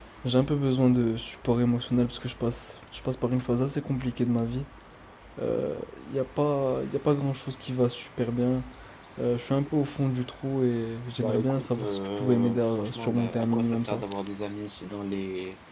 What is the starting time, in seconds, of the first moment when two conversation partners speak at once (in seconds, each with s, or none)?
11.2 s